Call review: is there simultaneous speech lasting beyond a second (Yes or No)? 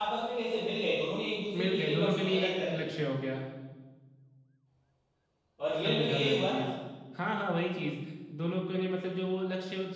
Yes